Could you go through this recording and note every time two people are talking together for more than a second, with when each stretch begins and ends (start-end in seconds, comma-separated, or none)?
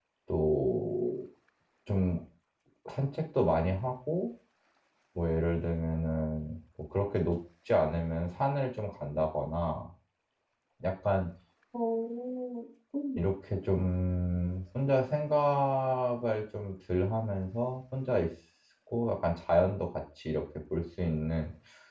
none